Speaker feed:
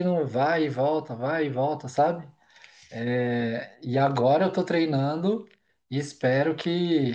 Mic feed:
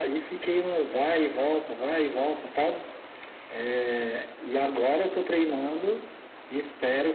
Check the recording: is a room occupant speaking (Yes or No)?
No